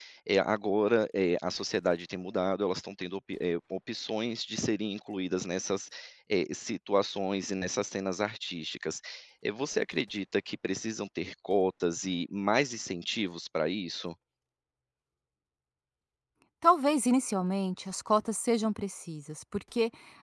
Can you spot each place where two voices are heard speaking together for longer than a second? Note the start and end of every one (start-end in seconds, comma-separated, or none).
none